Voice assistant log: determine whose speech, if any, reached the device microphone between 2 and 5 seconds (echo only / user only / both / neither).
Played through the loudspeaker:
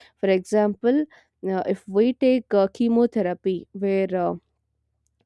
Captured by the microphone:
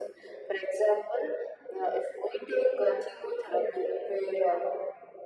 echo only